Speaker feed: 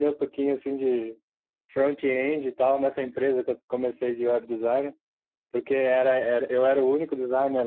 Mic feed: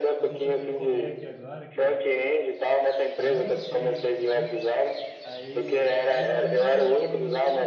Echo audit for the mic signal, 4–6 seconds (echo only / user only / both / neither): both